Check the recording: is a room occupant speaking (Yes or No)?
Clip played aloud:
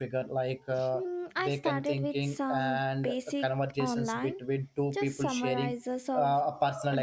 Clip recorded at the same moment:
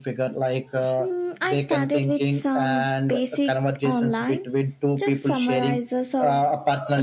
No